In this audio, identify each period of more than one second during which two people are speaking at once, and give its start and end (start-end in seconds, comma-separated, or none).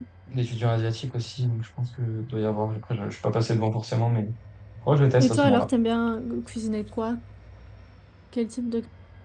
none